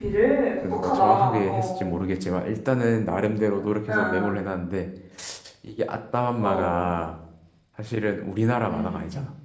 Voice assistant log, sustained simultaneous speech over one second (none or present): present